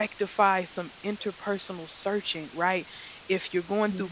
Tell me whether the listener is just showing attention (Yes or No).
Yes